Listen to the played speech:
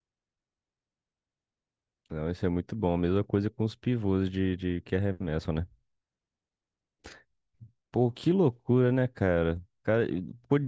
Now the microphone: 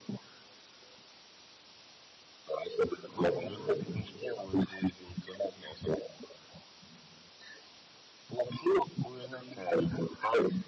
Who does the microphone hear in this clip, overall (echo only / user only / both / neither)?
both